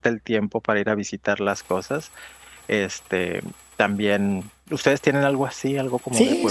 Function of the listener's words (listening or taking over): taking over